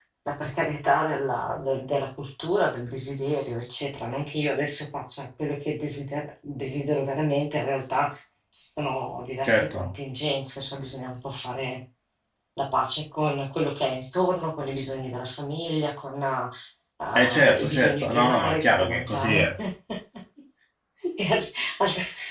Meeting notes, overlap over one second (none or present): present